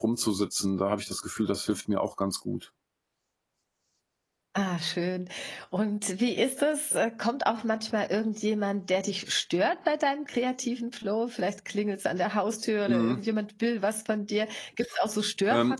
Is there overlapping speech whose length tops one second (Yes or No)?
No